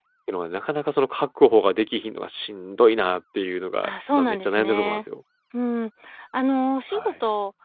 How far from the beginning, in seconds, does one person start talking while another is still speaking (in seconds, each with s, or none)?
3.8 s